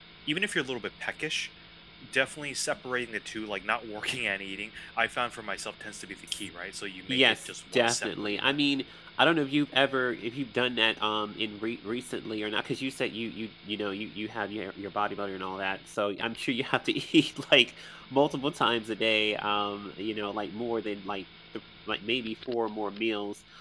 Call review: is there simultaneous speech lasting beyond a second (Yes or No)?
Yes